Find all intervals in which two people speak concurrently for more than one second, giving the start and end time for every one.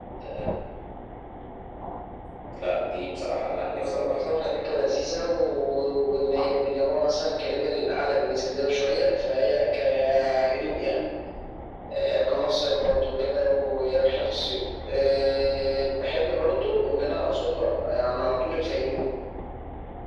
3.7-5.0

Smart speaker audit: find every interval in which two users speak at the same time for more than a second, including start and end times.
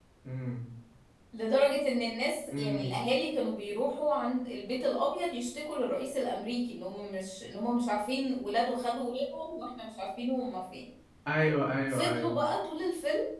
none

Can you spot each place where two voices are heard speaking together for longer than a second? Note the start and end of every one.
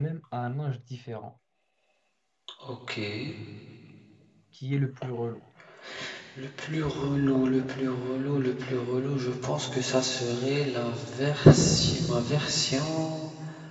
none

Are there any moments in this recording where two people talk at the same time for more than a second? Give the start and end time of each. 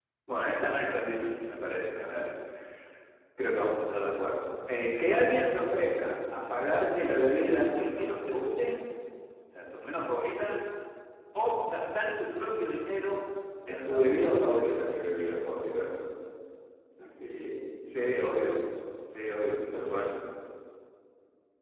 13.7-14.9

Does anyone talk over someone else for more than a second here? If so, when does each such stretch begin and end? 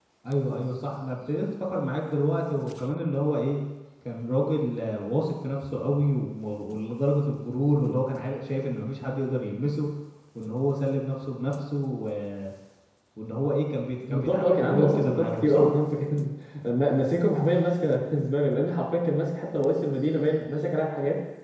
14.1-15.7

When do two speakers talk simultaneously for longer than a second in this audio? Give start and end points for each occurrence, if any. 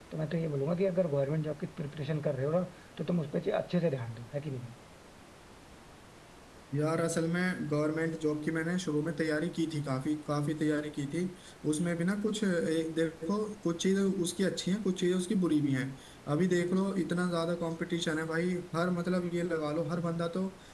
none

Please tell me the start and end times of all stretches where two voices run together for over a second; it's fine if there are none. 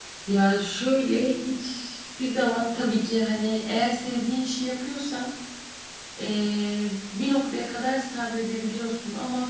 none

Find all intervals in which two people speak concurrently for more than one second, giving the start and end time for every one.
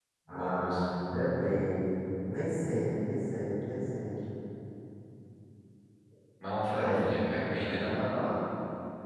6.7-8.0

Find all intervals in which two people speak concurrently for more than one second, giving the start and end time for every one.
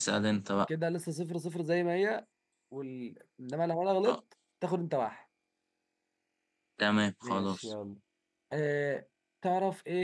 none

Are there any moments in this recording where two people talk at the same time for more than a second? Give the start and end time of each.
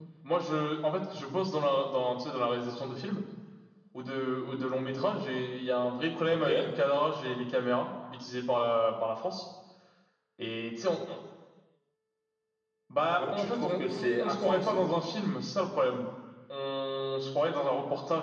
13.2-14.8

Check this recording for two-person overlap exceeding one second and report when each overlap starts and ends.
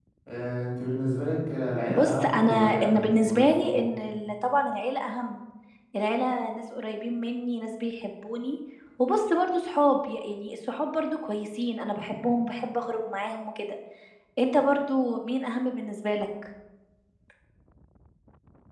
1.9-3.8

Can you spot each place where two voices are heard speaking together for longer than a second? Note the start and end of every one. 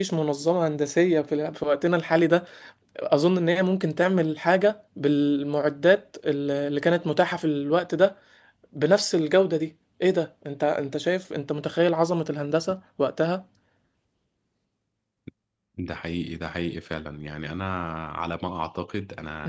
none

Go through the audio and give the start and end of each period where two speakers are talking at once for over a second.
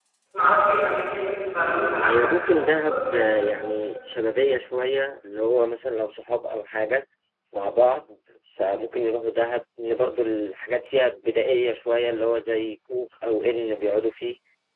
2.0-3.4

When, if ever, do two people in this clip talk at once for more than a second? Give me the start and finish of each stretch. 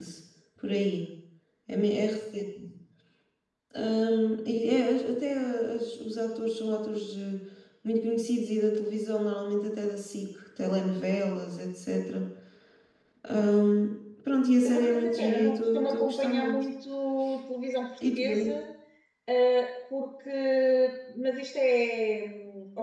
14.6-16.6

